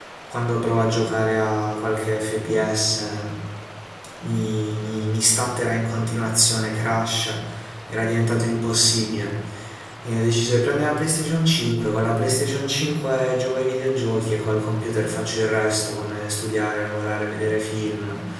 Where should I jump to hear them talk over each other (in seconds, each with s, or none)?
none